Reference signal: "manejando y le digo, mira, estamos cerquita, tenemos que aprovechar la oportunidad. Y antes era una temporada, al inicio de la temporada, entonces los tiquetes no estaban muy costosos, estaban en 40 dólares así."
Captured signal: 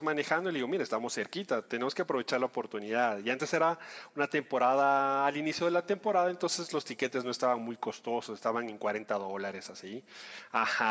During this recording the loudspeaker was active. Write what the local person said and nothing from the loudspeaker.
none

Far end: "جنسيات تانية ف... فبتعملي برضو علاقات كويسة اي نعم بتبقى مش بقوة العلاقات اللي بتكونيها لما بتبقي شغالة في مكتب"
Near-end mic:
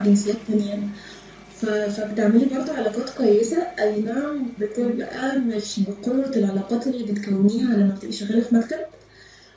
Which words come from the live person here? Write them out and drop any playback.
none

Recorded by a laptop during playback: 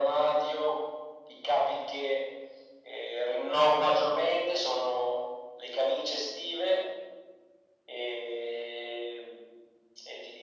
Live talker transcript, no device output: none

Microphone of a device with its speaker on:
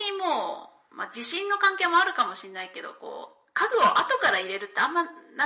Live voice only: none

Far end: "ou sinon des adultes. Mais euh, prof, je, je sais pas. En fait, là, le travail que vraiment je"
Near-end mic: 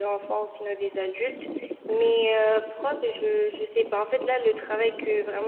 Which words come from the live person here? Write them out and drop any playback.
none

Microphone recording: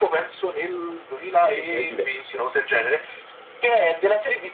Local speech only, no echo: ha detto, è diverso.

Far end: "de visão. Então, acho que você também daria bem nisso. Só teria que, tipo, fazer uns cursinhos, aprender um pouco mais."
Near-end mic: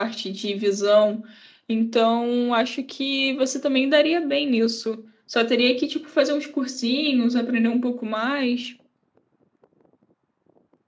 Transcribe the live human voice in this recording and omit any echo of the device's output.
none

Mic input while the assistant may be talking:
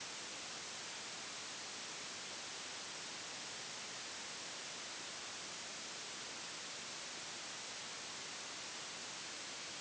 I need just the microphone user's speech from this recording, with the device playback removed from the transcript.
none

